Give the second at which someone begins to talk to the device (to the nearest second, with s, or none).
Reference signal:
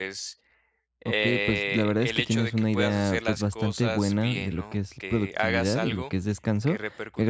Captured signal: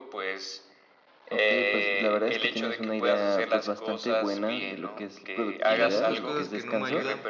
6 s